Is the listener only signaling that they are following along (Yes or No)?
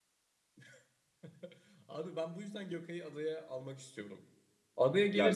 Yes